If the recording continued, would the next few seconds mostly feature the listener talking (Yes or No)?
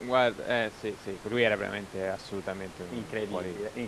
Yes